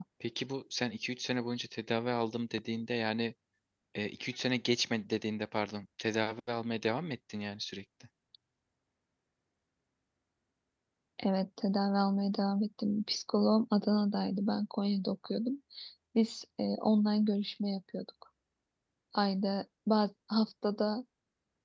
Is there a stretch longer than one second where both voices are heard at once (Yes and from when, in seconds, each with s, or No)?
No